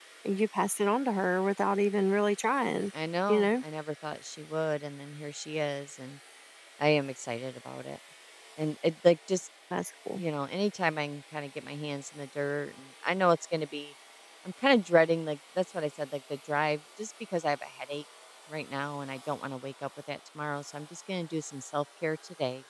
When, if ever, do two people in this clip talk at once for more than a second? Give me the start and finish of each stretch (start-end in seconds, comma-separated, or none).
none